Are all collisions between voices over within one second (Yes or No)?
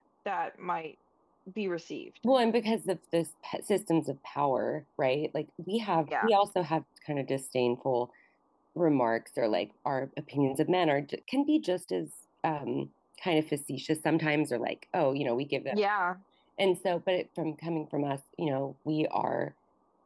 Yes